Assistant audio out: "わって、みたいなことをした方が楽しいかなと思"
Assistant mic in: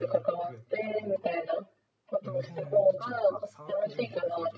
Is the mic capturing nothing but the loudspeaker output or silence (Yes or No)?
No